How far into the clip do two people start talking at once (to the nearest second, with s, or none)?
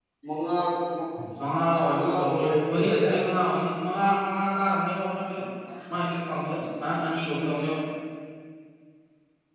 2 s